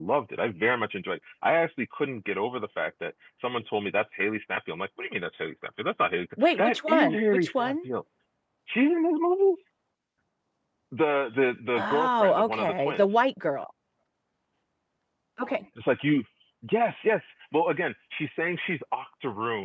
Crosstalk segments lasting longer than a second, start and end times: 6.4-7.8, 11.8-13.0

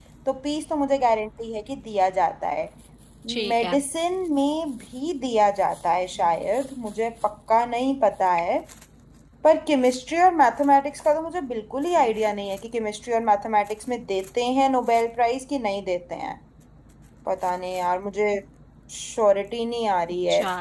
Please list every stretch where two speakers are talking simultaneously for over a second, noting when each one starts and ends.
none

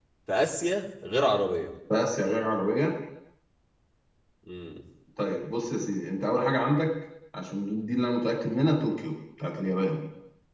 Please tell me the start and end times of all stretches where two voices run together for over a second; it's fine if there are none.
none

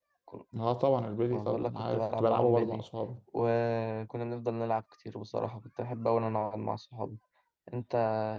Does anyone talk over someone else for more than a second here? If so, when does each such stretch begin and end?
1.3-2.8

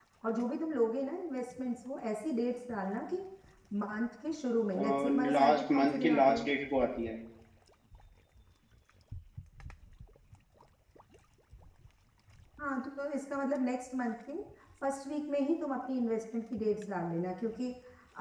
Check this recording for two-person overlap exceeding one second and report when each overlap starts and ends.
4.8-6.5

